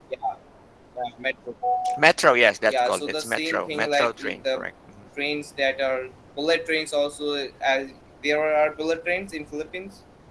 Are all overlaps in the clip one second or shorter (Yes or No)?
No